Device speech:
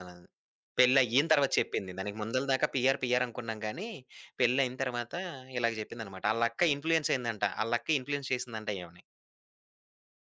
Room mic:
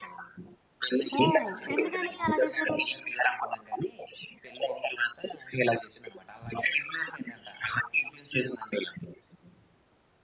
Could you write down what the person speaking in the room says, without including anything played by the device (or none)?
ఓహ్! ఎందుకని అలా చేశారు?